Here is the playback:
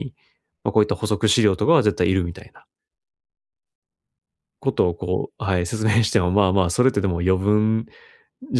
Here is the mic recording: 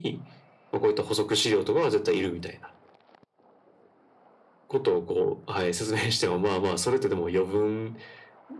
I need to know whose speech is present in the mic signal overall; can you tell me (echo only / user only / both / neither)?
echo only